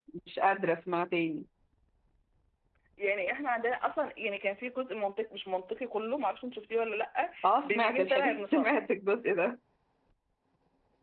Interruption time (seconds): 7.4 s

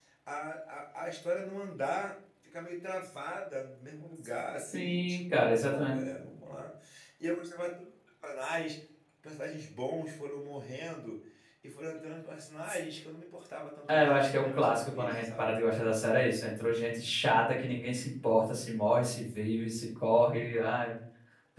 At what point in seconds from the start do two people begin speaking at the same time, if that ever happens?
4.7 s

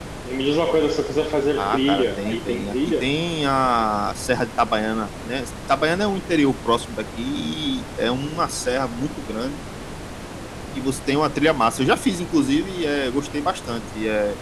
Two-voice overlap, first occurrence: 1.6 s

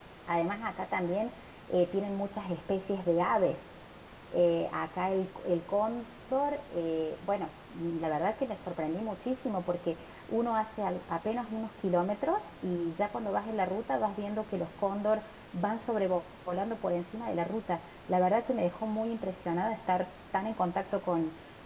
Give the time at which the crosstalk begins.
none

